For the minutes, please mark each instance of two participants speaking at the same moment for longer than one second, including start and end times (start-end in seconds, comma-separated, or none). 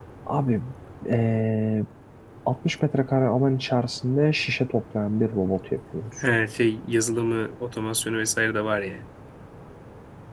none